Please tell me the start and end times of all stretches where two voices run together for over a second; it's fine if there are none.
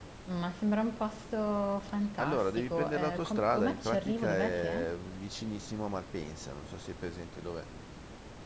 2.2-4.8

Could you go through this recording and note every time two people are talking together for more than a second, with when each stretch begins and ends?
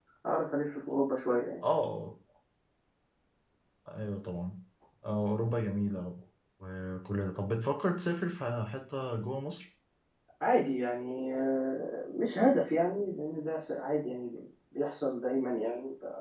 none

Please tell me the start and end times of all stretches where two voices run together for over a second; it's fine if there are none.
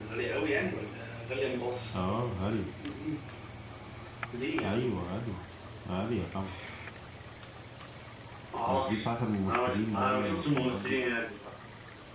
9.5-11.0

